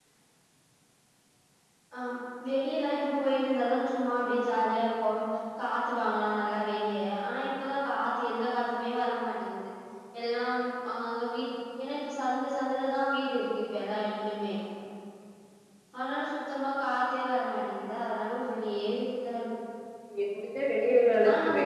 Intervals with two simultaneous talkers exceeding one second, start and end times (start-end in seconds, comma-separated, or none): none